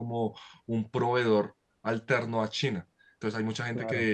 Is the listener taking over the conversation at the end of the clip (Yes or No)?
No